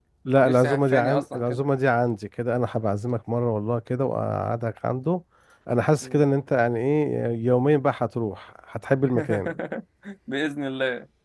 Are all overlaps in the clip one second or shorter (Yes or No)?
No